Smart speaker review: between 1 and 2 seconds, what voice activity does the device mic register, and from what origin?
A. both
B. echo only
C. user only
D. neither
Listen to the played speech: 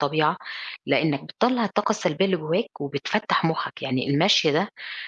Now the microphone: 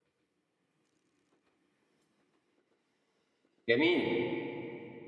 D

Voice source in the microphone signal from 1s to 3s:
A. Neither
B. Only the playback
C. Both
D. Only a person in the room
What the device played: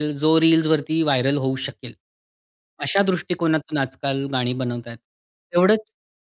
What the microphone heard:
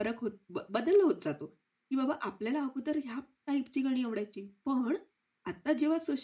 D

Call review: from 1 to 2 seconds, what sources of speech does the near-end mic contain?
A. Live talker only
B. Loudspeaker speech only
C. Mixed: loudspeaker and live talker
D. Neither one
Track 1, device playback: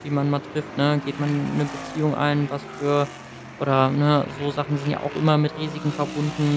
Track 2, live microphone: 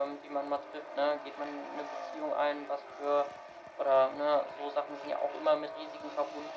B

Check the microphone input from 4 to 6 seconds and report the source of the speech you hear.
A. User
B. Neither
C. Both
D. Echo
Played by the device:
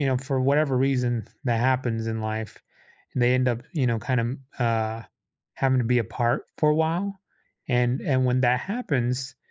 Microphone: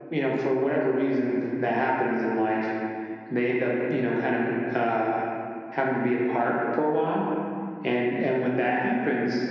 D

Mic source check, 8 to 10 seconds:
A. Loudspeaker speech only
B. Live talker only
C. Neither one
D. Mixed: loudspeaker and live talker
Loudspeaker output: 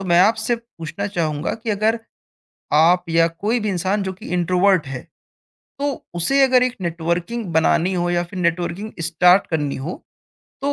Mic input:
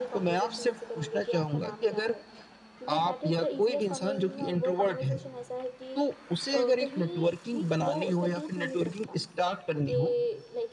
D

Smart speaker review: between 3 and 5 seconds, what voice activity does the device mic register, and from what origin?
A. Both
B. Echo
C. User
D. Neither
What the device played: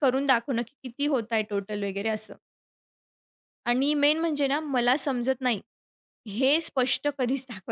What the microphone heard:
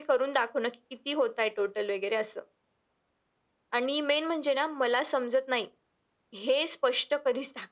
B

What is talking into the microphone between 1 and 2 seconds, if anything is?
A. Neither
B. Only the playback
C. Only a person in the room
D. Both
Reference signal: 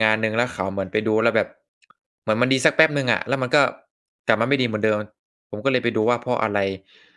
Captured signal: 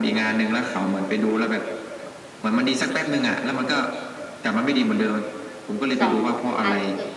B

